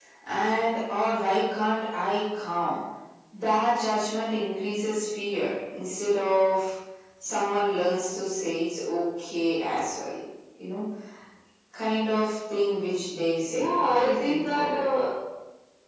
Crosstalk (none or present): present